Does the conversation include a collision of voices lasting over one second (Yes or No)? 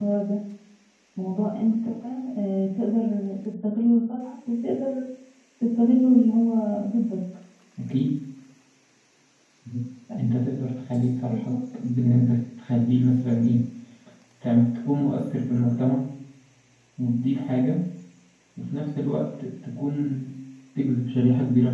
No